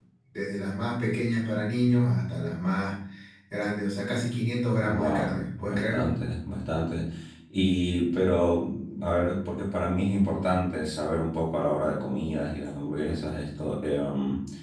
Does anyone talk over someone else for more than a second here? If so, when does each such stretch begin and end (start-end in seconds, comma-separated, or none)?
4.9-6.2